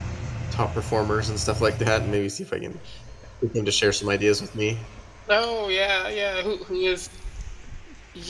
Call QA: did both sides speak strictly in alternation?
Yes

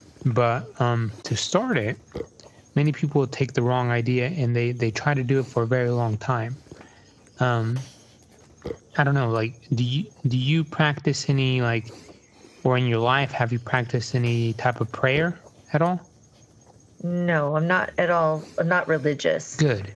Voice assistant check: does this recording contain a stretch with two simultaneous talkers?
No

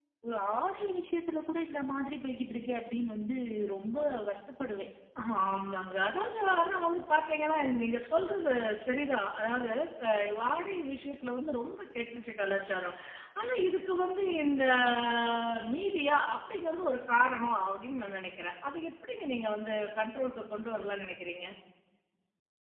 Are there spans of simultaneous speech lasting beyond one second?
No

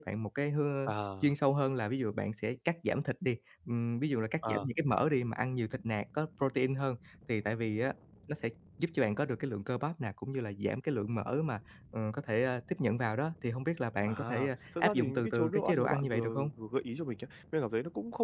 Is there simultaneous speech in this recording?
Yes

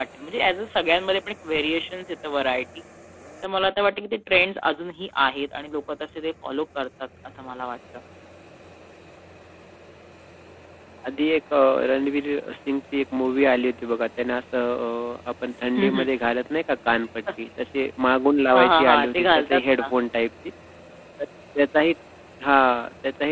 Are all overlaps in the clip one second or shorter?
No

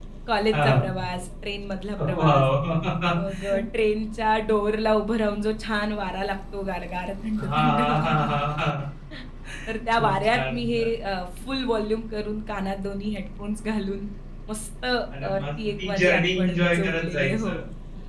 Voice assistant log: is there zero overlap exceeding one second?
No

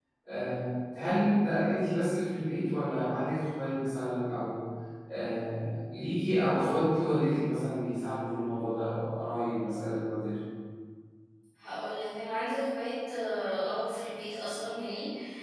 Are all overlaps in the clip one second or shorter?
Yes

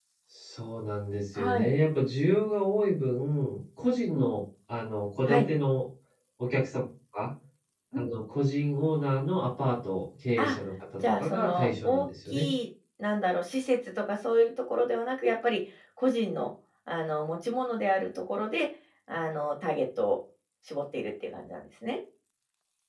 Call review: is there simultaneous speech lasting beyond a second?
Yes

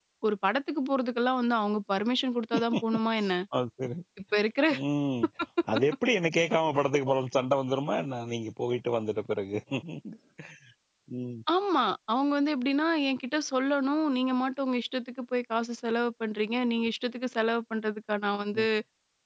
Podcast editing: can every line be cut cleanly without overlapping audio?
Yes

